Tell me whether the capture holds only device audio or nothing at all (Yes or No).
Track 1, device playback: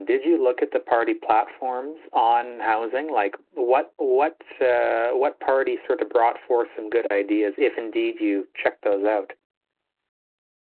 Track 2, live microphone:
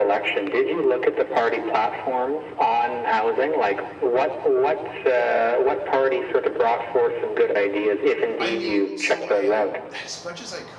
No